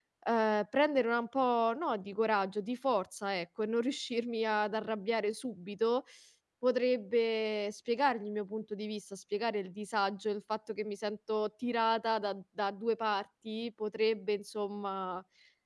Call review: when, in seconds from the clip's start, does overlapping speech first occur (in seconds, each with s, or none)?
none